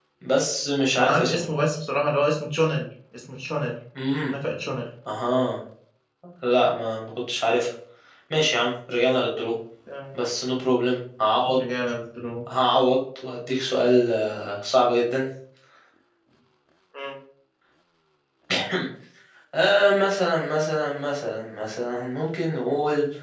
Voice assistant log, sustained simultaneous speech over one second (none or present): none